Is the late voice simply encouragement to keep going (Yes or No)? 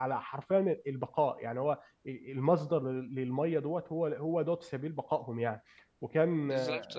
Yes